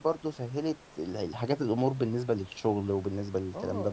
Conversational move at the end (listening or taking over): taking over